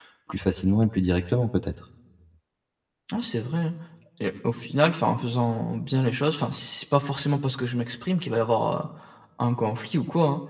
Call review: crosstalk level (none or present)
none